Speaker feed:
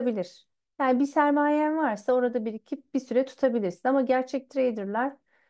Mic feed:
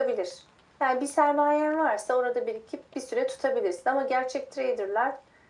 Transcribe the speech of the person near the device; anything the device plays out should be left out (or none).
none